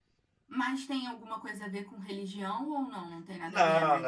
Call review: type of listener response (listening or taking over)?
taking over